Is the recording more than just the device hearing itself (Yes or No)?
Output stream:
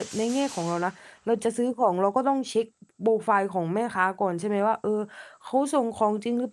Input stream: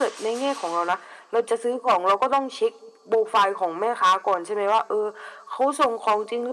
No